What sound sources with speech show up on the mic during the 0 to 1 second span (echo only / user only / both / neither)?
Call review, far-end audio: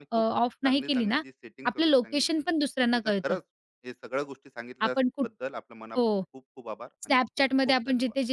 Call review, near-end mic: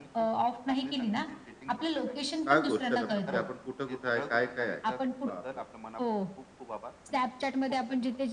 echo only